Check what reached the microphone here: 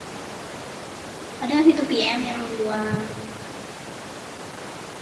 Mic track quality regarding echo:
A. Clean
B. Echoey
A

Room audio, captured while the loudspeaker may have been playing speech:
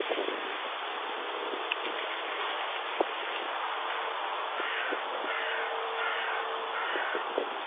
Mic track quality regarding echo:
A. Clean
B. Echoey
A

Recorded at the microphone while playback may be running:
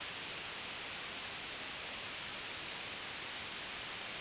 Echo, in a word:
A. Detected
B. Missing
B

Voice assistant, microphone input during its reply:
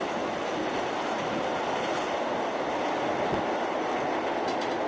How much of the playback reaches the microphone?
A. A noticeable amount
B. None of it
B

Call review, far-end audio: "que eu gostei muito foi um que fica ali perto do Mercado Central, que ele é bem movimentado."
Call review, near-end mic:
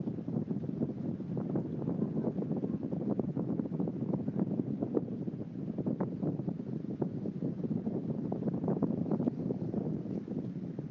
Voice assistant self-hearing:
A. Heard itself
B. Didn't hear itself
B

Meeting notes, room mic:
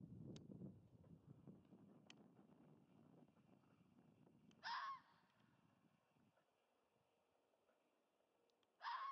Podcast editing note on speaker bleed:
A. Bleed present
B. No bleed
B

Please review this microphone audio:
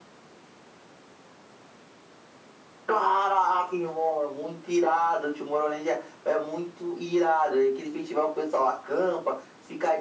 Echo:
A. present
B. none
A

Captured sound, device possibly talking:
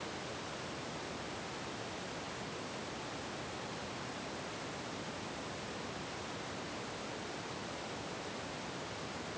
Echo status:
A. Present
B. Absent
B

